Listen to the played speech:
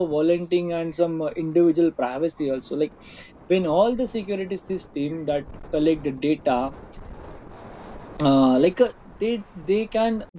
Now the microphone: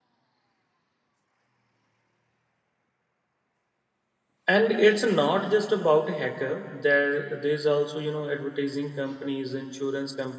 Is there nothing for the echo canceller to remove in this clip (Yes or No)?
Yes